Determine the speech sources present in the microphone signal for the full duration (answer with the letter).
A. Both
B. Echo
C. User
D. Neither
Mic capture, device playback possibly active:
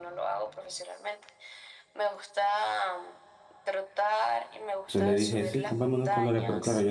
A